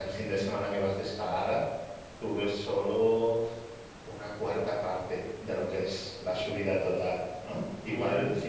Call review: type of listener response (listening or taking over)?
listening